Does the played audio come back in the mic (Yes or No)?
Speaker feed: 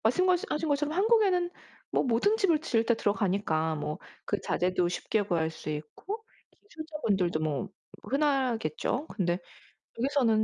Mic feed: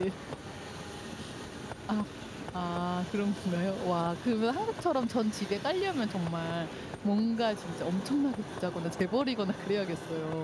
No